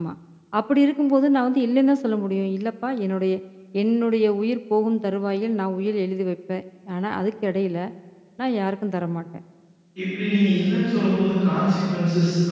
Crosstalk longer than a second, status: none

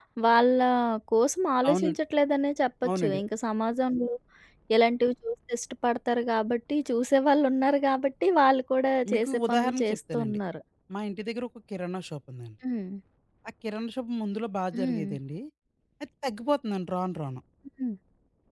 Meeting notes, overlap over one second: present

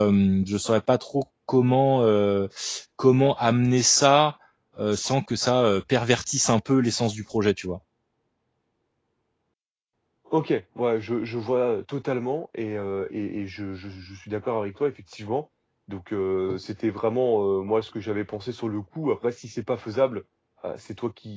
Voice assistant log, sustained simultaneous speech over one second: none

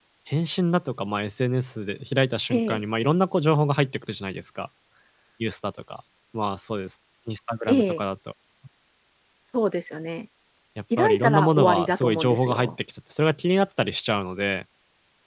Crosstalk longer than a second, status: present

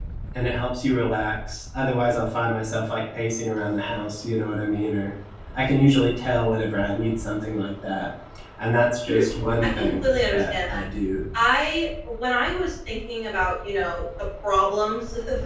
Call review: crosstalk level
present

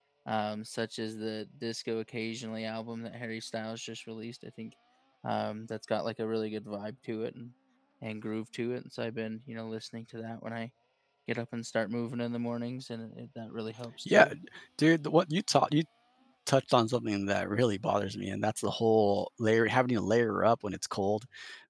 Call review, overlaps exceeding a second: none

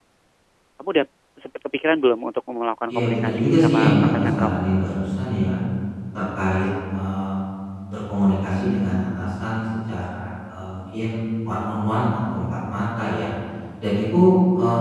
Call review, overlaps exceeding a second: present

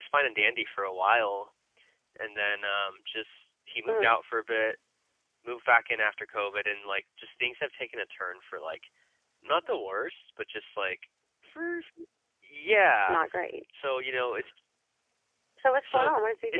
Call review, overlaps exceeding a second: none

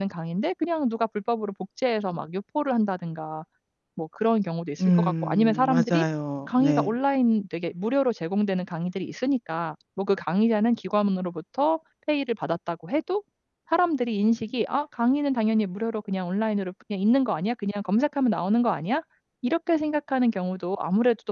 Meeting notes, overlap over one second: present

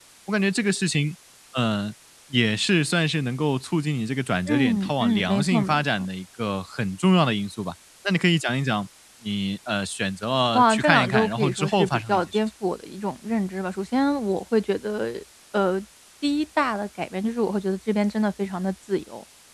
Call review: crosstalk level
present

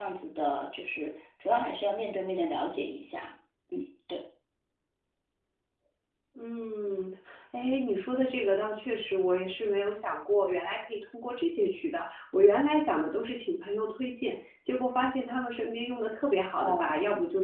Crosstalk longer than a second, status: none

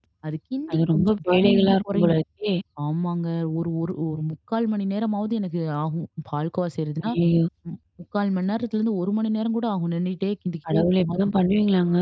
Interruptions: present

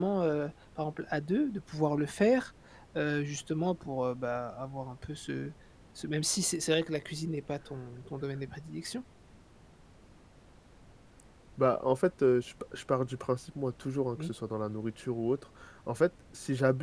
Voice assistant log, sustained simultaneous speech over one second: none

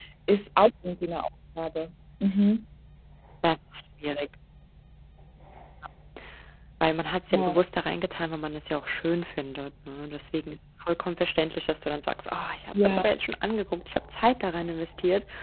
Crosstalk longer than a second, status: none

